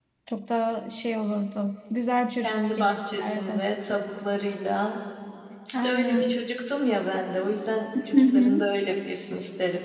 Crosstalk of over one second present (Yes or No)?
Yes